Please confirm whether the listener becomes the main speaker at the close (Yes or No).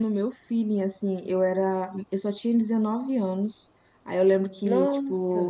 No